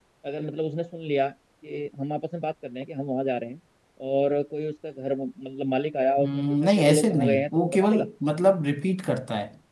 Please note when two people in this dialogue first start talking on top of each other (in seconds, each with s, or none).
6.2 s